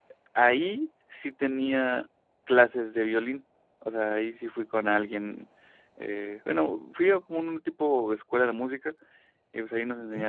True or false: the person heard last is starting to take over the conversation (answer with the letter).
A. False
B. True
A